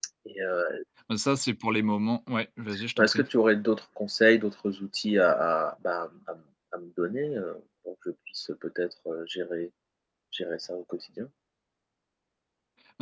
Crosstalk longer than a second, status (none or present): none